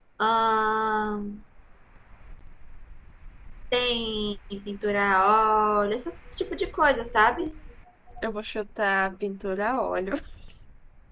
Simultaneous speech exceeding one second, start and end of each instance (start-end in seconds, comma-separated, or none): none